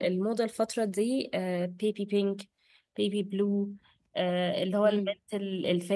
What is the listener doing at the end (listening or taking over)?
listening